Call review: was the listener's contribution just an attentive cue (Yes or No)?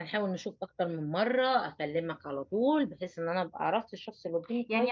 No